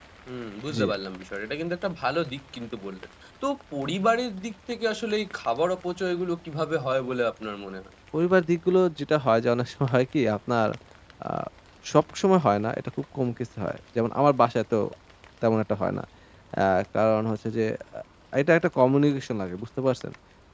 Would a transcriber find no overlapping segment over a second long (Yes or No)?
Yes